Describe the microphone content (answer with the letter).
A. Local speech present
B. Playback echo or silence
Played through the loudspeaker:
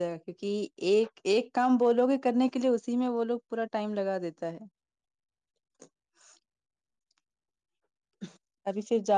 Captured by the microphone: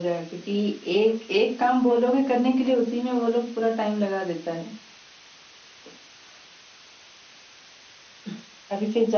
B